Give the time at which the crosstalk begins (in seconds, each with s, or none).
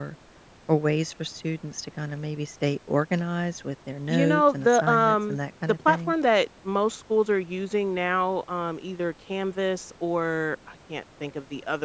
4.1 s